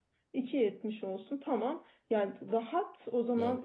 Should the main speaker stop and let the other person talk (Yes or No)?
No